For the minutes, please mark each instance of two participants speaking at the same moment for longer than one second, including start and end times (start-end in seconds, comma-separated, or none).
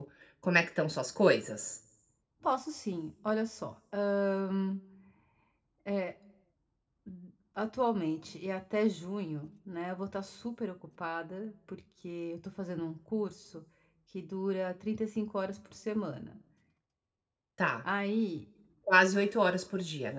none